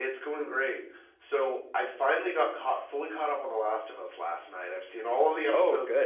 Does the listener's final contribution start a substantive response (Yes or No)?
No